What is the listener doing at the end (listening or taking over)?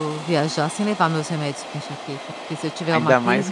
taking over